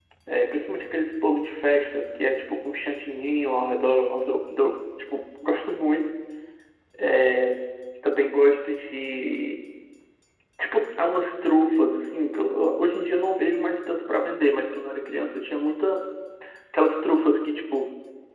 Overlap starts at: none

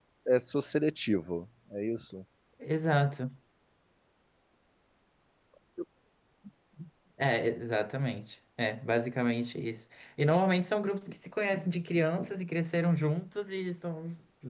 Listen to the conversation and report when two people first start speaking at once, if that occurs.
none

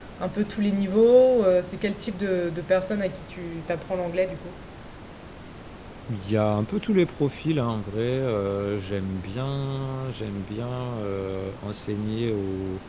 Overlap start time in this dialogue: none

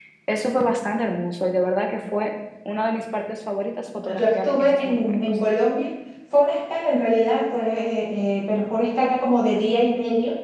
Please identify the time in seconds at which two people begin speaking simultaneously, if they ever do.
4.0 s

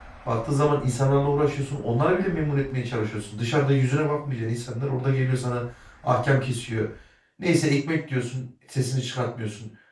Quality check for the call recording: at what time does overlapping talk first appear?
none

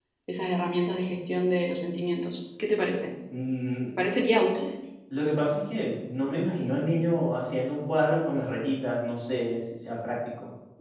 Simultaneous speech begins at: none

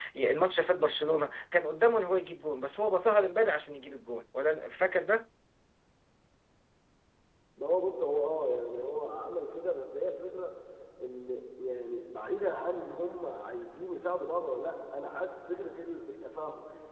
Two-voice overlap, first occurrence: none

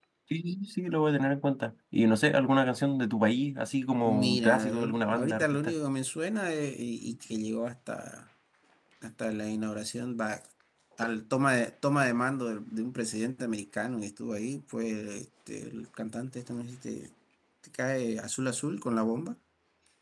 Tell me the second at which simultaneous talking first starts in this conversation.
4.0 s

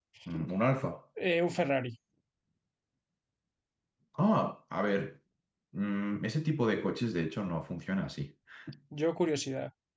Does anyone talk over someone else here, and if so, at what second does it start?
none

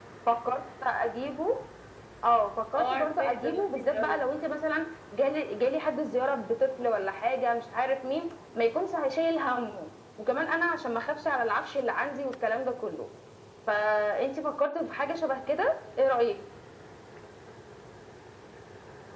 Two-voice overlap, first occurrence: 2.8 s

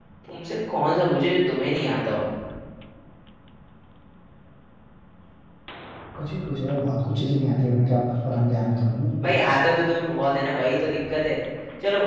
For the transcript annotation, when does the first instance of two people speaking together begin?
none

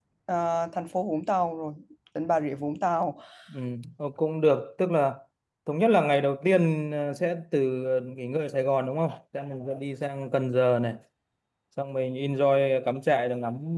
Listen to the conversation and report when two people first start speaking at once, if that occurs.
none

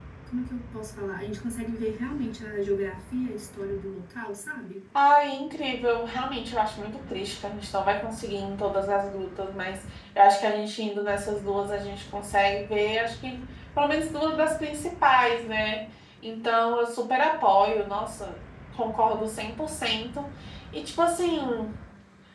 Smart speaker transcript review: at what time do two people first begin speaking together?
none

